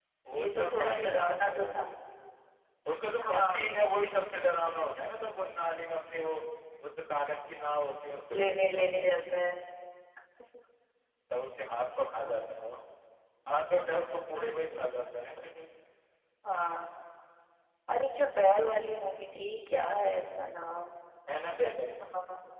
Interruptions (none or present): present